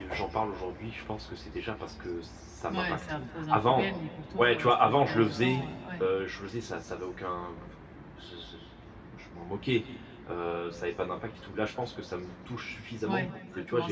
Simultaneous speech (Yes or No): Yes